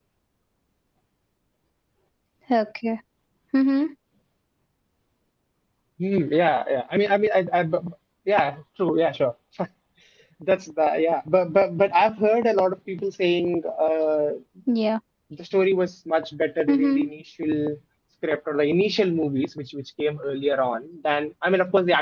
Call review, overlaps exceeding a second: none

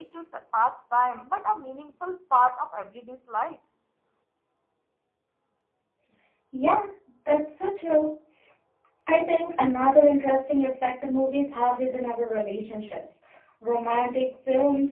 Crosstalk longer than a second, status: none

